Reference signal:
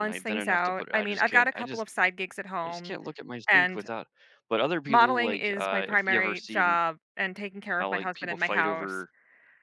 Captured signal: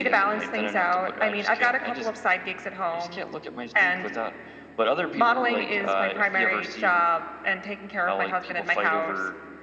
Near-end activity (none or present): none